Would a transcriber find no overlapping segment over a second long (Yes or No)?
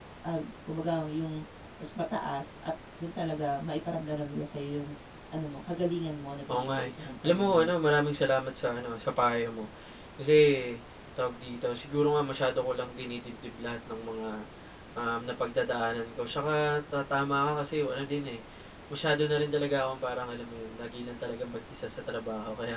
No